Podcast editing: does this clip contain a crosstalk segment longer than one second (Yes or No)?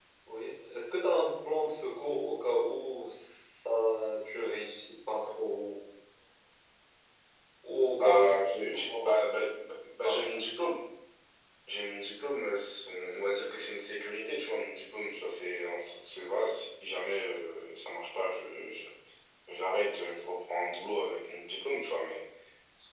Yes